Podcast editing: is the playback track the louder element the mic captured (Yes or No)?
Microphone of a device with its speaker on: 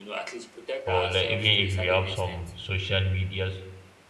No